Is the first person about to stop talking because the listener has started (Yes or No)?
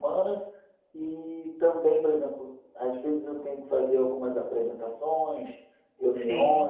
No